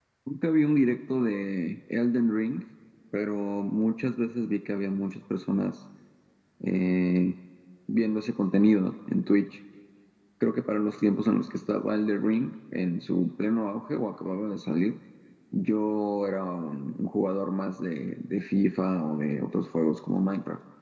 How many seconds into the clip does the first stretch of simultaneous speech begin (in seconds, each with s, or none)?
none